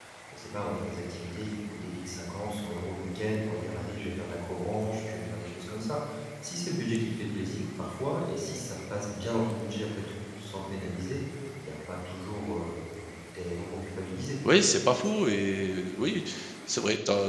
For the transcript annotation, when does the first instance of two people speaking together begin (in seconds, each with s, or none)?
none